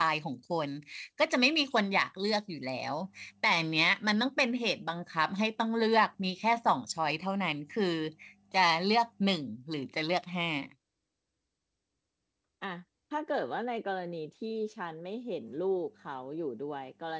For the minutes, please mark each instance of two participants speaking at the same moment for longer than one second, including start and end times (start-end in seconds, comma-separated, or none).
none